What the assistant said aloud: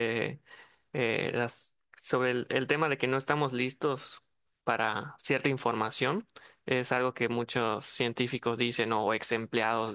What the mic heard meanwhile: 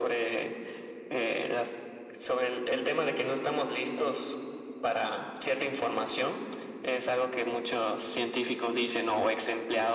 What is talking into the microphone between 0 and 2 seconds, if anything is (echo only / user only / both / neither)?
echo only